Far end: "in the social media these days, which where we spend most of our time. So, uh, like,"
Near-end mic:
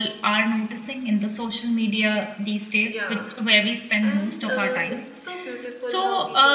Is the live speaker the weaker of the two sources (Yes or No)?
Yes